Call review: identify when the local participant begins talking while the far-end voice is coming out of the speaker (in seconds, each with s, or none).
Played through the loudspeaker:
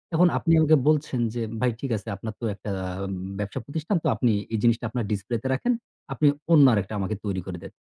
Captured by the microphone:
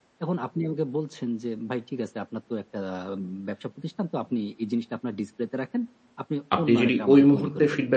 6.6 s